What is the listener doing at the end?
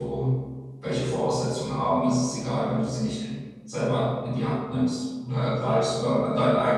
listening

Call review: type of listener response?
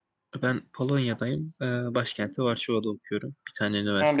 taking over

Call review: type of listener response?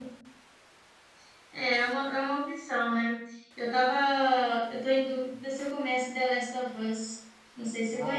taking over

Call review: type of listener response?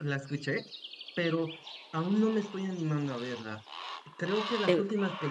listening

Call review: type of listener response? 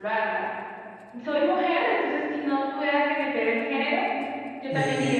taking over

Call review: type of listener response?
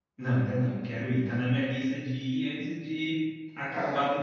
listening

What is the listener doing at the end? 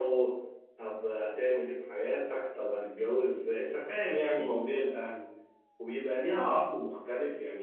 listening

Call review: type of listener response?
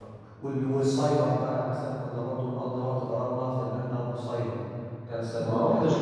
taking over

